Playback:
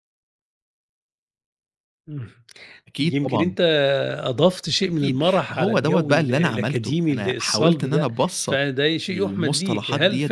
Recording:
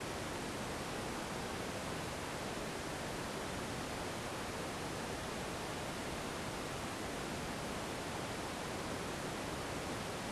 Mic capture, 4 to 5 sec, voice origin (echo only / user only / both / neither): neither